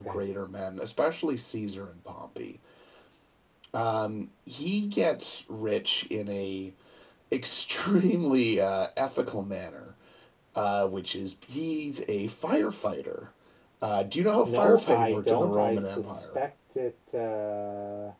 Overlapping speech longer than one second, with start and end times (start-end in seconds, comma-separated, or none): 14.4-16.4